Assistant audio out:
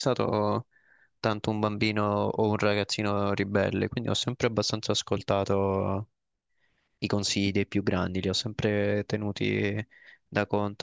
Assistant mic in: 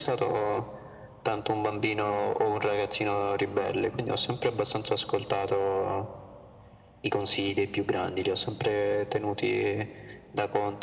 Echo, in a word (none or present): present